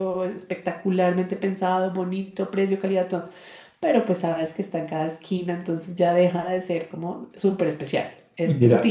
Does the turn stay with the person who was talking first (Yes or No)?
No